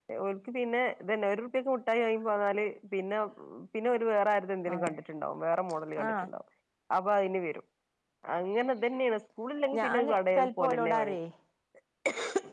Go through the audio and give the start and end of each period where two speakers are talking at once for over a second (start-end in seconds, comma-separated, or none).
9.8-11.2